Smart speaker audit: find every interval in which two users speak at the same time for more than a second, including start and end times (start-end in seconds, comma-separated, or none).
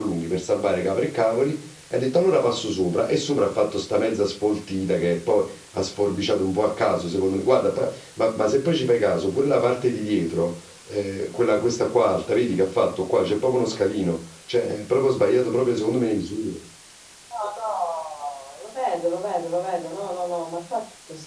none